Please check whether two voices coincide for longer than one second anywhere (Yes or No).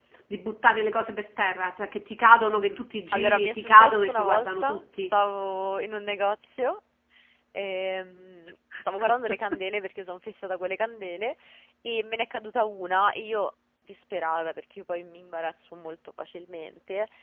Yes